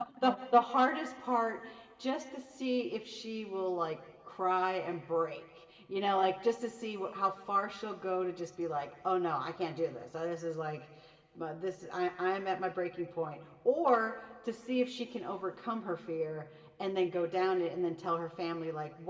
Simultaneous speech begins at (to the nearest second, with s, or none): none